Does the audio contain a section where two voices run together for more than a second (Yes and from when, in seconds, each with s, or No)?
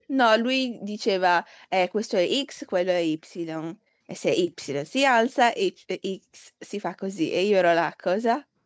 No